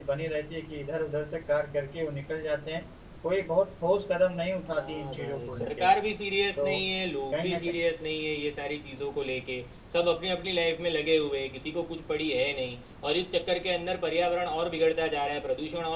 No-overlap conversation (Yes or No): No